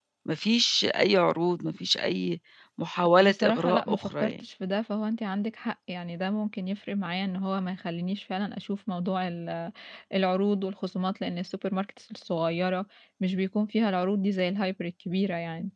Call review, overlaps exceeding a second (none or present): present